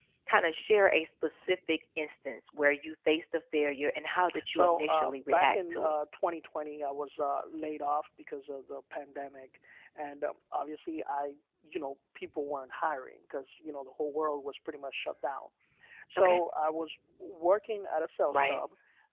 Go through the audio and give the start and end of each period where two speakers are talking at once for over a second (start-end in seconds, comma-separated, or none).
4.5-5.9